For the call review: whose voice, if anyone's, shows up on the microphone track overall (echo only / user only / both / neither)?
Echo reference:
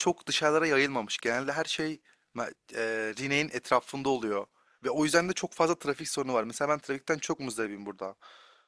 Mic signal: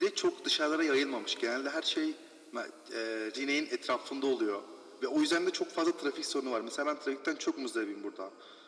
echo only